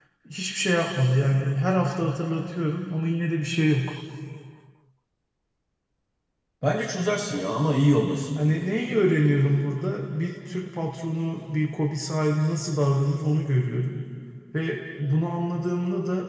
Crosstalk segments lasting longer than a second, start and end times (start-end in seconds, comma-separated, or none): none